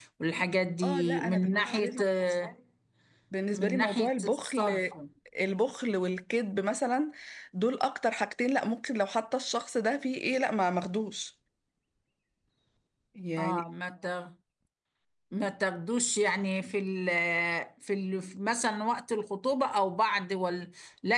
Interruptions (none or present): present